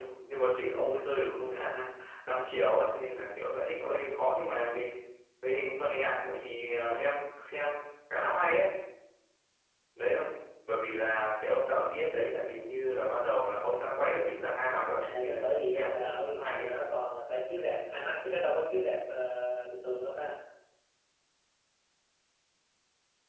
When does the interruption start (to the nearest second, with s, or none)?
15 s